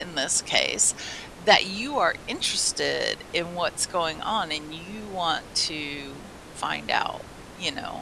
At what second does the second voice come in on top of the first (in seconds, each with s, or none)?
none